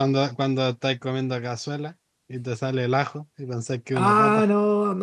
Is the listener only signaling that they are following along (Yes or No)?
No